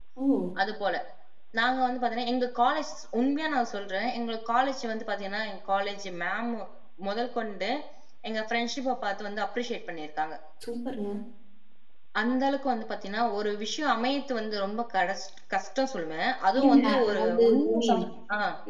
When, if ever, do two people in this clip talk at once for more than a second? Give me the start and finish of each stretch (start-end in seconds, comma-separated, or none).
16.5-18.0